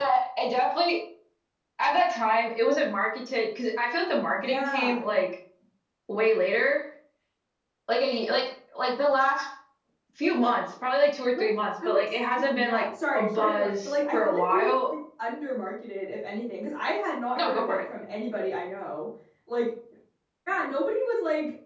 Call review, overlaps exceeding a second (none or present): present